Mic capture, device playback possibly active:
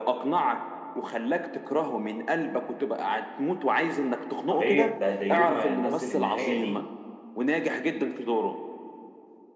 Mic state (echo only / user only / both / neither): both